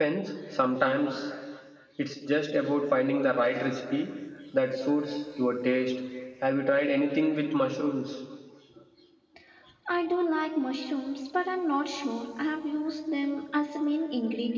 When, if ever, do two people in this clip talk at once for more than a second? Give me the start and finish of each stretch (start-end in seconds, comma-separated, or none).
none